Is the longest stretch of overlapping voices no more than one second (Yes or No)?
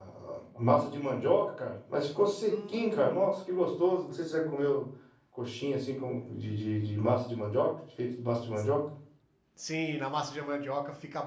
No